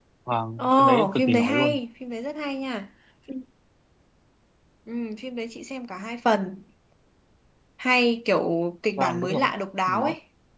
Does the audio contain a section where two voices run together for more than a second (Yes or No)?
Yes